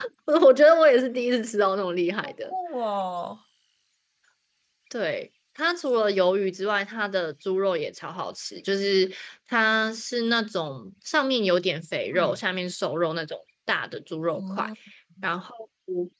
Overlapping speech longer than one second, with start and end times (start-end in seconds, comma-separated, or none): none